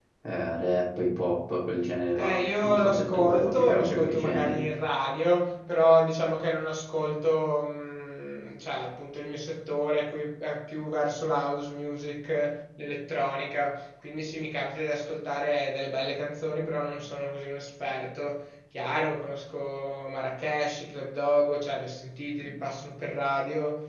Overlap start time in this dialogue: 2.2 s

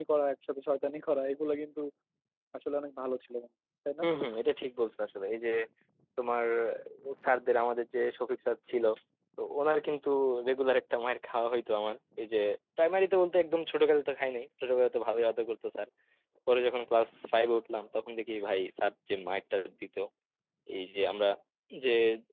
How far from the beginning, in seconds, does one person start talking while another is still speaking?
none

